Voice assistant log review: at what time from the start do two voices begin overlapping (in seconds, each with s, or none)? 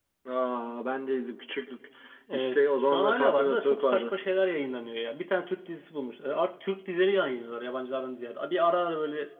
2.3 s